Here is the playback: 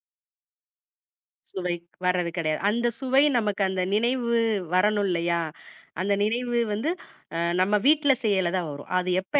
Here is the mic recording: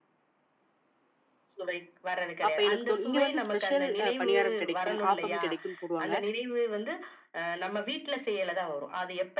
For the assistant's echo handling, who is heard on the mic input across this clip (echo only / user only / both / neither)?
both